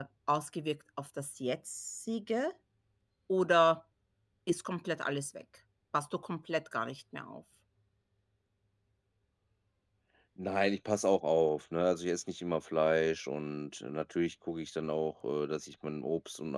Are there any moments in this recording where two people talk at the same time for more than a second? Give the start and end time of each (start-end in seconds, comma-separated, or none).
none